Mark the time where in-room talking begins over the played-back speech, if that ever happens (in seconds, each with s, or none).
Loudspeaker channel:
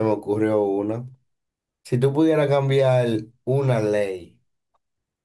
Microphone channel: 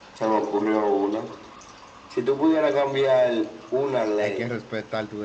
4.2 s